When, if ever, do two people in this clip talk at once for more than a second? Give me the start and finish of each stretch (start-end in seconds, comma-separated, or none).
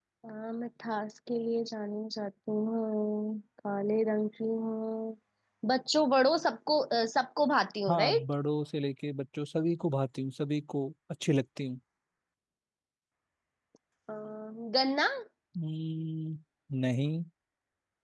none